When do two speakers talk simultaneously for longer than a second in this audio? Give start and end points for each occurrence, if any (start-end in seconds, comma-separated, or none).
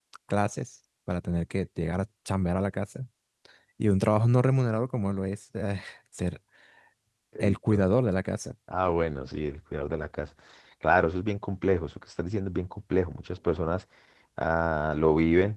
none